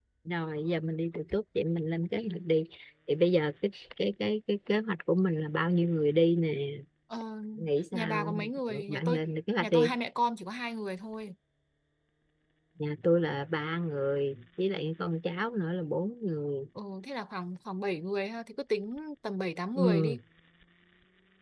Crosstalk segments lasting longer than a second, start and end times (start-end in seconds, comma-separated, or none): 7.9-9.2